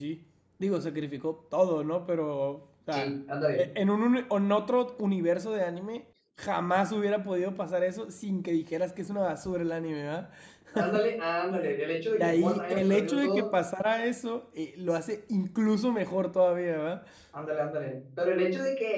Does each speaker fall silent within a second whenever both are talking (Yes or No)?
No